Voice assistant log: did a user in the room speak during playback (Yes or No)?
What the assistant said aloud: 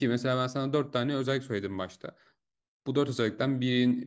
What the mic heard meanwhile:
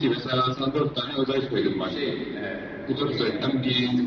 Yes